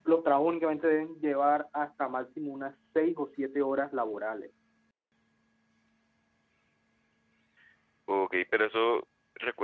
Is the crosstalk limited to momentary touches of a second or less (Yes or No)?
Yes